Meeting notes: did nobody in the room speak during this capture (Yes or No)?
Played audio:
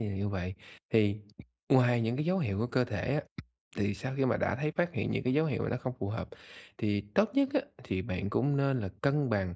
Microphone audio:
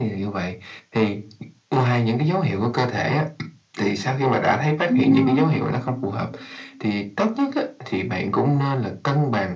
No